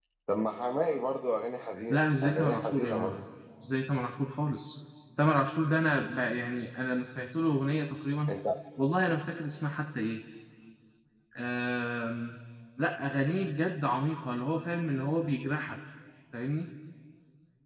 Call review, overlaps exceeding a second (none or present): present